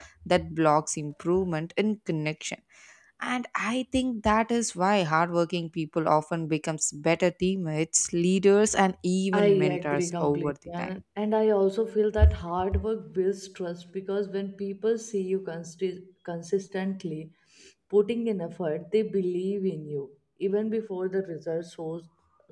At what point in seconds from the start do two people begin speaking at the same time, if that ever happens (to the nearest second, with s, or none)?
9 s